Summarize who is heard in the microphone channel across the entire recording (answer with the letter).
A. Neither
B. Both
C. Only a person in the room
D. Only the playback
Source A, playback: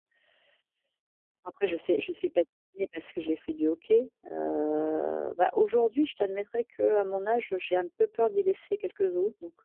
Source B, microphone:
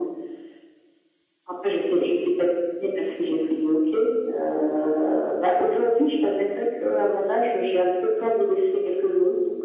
D